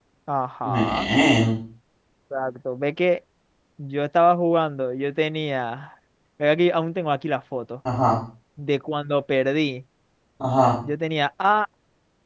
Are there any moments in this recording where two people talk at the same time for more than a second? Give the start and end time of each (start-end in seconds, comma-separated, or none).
none